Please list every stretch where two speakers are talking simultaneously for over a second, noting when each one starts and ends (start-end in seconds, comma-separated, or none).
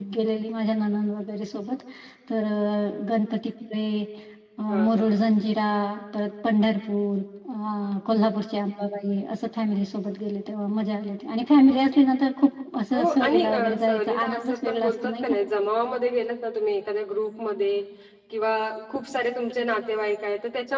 12.9-15.3